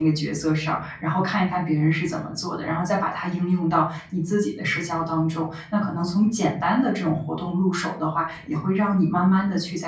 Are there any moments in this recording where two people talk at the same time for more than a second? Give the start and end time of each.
none

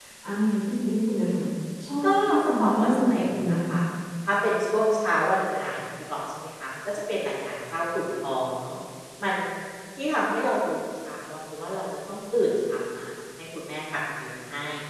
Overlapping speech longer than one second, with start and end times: 2.0-3.8

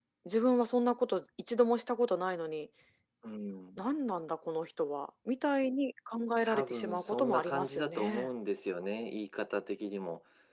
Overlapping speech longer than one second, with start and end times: 6.4-8.3

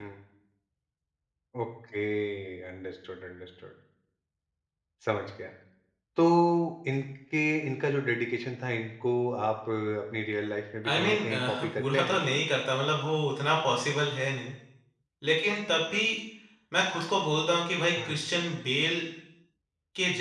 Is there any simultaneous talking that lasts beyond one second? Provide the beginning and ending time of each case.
10.9-12.2

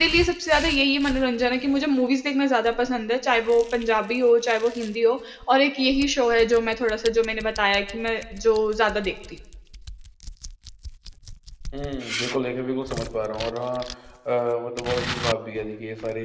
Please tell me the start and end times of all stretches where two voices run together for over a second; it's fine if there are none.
none

